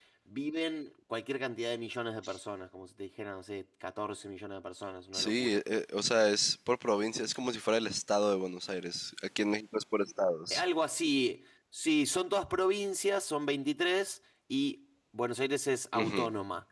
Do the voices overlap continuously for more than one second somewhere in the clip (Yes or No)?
No